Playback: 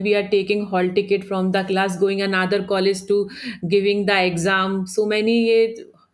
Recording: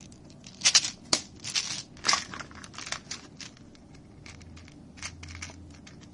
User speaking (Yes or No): No